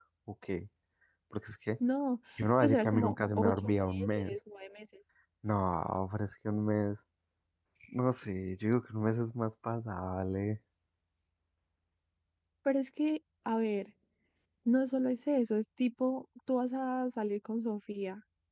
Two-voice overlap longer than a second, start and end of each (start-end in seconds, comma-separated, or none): 2.6-4.4